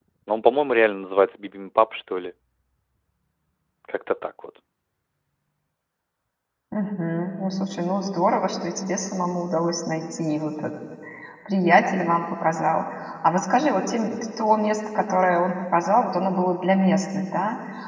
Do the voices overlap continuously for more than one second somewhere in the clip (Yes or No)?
No